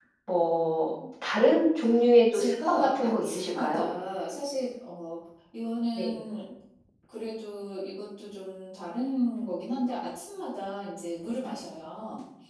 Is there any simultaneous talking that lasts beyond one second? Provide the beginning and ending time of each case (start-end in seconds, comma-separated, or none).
2.3-3.9